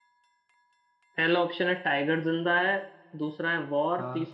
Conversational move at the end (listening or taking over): listening